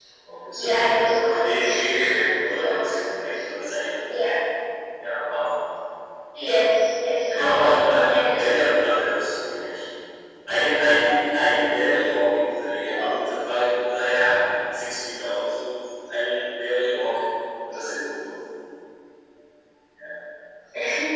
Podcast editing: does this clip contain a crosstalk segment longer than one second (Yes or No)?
Yes